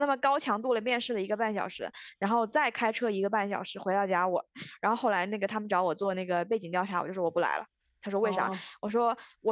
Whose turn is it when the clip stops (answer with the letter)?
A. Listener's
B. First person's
B